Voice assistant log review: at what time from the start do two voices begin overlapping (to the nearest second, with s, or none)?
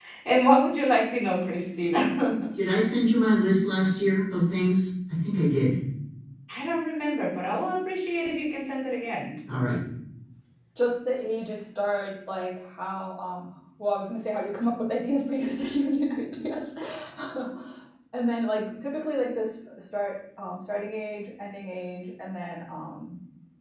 none